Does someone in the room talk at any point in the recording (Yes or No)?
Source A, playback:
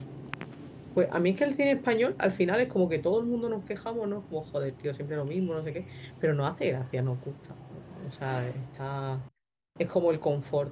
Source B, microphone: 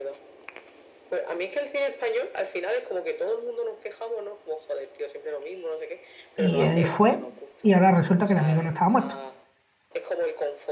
Yes